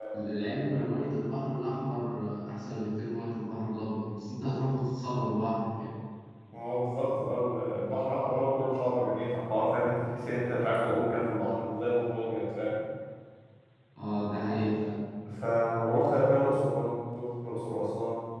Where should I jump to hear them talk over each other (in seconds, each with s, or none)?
none